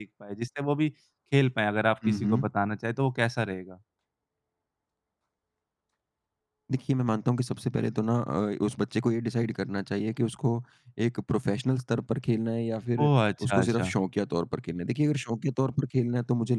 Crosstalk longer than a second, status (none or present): none